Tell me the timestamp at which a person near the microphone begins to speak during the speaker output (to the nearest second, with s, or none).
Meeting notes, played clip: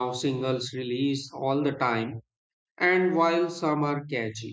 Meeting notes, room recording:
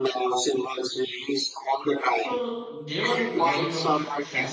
2 s